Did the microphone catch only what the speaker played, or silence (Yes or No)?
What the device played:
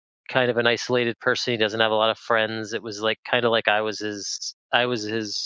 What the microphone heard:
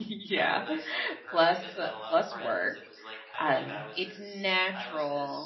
No